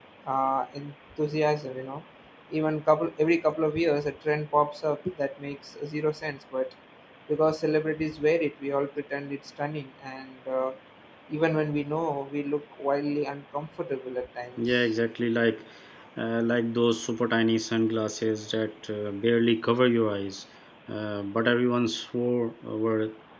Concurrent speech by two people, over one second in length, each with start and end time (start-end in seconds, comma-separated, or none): none